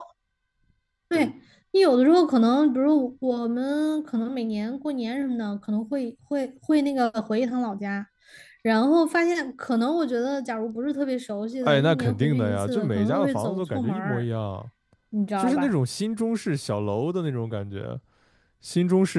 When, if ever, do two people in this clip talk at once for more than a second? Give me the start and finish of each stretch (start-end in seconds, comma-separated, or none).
11.6-14.2